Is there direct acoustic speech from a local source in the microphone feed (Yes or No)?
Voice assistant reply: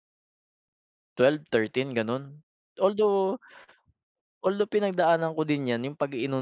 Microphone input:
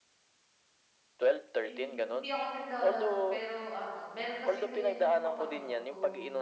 Yes